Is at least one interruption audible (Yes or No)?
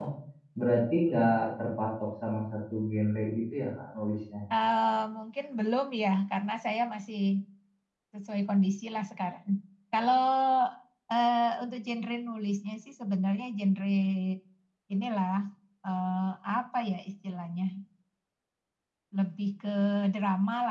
No